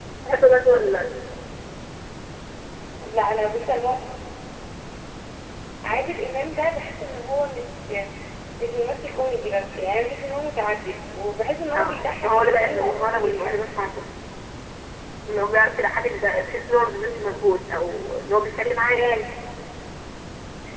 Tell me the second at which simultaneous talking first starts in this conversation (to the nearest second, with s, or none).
12 s